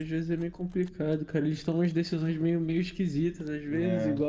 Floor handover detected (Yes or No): No